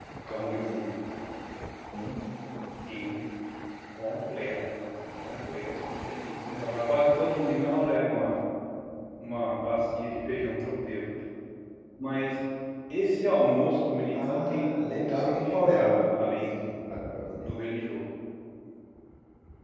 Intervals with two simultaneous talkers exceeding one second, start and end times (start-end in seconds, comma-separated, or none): 14.1-16.7